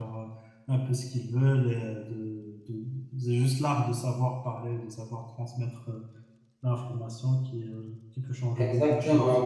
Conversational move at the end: taking over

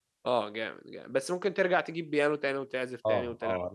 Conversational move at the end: taking over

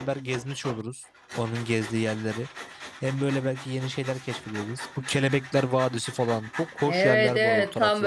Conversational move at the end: taking over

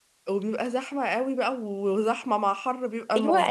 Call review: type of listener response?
taking over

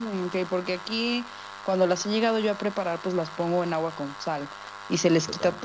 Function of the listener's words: listening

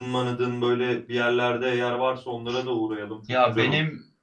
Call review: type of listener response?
taking over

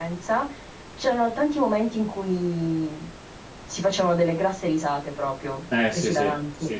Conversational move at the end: taking over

